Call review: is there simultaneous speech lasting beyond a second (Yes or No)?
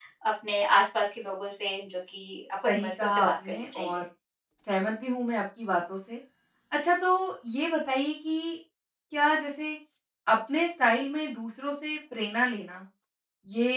Yes